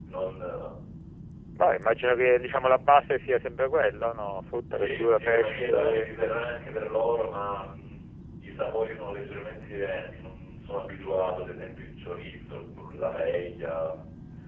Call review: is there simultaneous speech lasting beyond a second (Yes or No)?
Yes